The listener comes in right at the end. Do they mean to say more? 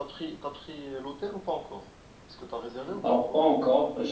Yes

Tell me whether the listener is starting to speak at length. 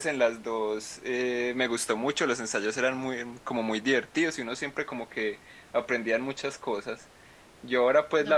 No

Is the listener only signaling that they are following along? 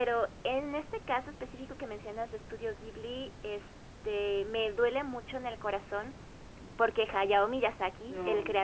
Yes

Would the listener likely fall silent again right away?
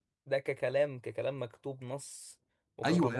No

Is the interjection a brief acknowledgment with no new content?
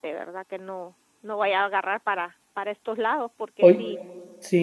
No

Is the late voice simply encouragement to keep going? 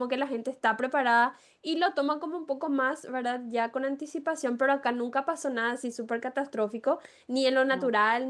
Yes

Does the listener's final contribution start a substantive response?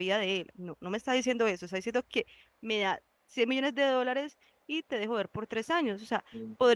No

